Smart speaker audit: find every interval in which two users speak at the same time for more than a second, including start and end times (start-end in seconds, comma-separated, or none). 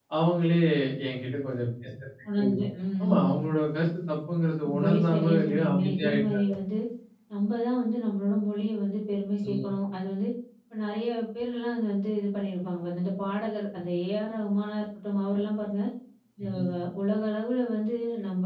4.7-6.4